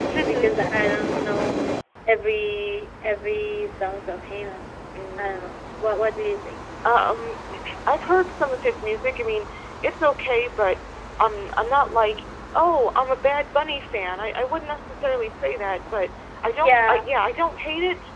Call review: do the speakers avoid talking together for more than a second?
Yes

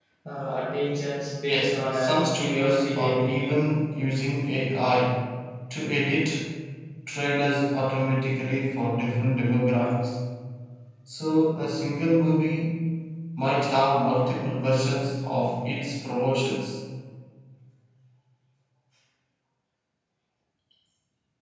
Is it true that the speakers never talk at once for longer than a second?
No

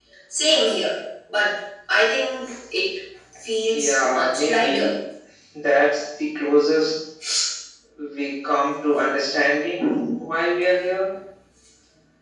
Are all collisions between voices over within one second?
No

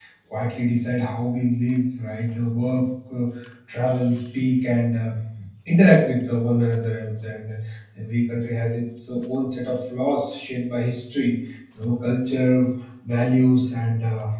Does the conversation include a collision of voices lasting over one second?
No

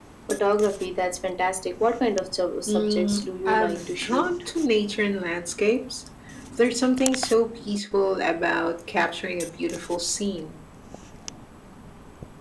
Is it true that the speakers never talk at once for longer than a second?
No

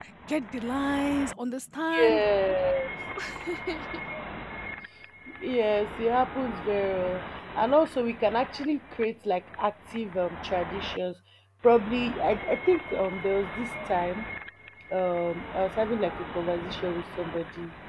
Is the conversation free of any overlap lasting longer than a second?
Yes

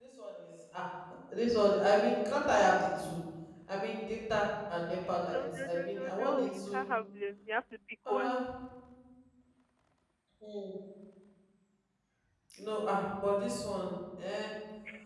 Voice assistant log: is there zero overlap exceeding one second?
No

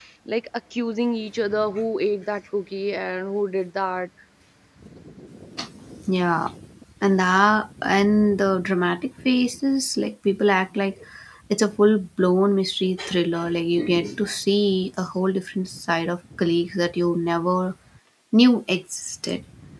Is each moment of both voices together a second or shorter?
Yes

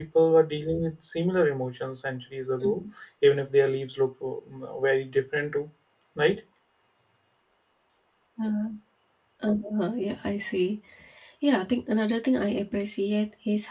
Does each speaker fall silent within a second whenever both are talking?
Yes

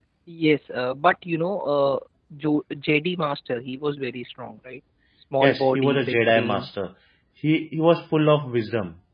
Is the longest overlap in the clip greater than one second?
Yes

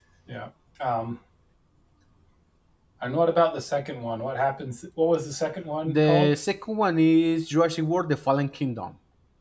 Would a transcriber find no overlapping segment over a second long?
Yes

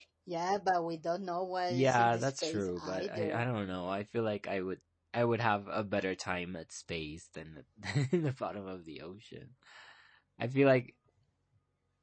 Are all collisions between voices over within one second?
No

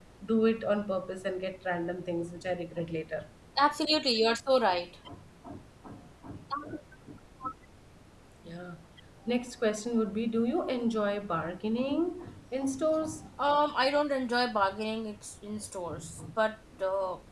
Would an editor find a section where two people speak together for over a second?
No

